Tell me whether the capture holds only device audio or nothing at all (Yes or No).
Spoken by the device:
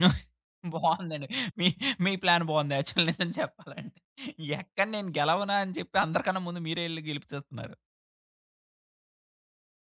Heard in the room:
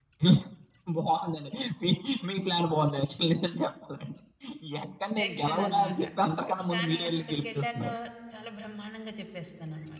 No